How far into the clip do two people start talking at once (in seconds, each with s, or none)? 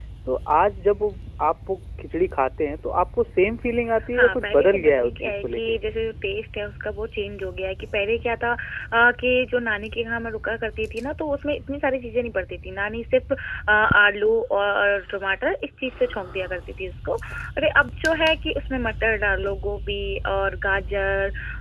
4.1 s